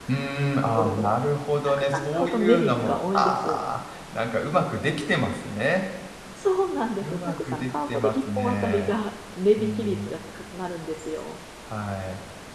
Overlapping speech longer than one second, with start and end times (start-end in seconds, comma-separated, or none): 1.7-3.6, 7.0-8.9